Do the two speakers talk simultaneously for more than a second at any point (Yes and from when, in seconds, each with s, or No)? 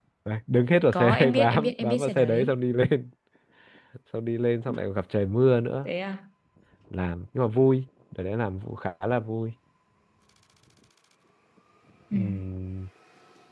Yes, from 0.9 s